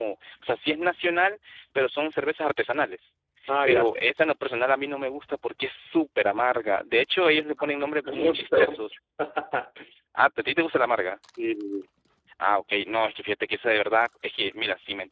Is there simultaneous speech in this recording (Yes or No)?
Yes